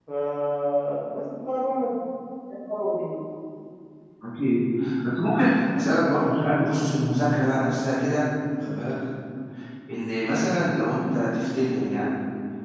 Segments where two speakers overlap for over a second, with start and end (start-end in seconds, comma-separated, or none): none